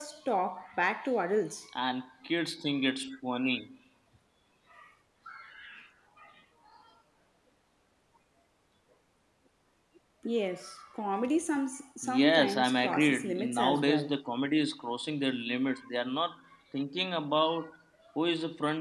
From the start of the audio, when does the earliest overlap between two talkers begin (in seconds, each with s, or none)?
12.0 s